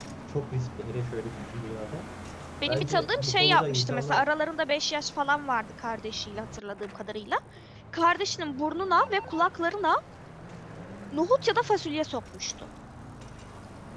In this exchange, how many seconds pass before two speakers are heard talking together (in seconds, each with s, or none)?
2.7 s